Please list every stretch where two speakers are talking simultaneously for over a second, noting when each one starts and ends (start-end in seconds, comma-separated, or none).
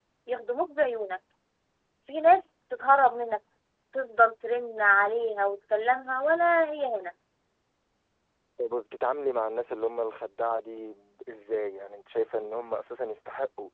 none